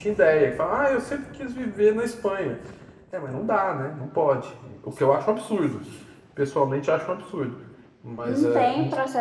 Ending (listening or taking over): taking over